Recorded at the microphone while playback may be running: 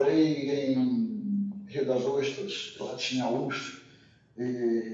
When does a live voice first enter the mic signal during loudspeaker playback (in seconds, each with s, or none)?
none